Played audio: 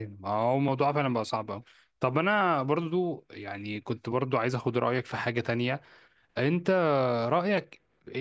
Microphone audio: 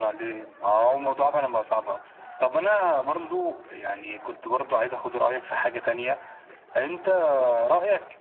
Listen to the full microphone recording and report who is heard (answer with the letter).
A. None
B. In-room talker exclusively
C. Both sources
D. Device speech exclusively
D